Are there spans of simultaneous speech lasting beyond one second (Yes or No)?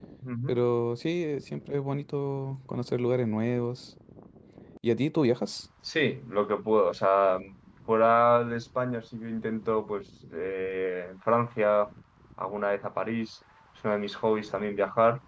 No